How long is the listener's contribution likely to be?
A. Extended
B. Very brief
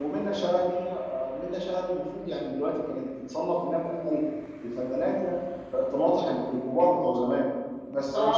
A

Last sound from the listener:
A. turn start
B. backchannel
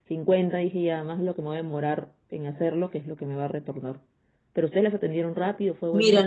A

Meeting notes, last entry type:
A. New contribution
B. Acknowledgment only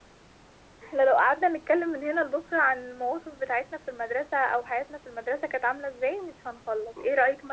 B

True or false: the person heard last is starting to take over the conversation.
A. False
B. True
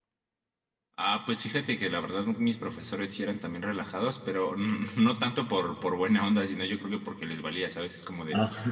A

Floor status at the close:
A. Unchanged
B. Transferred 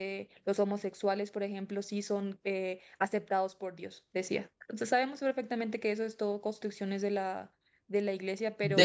B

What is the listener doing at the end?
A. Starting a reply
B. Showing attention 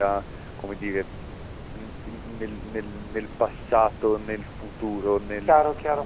A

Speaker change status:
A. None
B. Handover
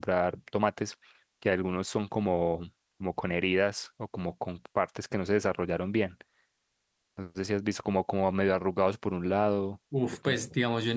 B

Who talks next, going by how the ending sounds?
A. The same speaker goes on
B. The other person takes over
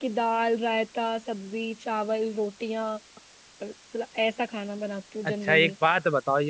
B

